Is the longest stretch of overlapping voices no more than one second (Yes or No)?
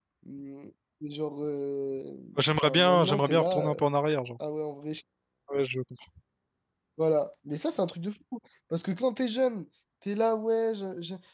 No